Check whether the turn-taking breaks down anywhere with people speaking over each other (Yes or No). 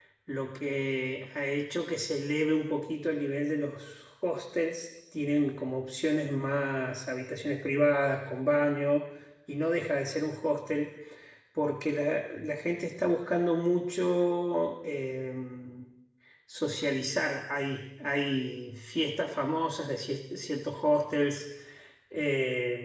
No